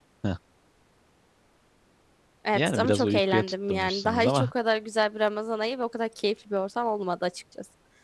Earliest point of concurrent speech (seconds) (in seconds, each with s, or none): 2.5 s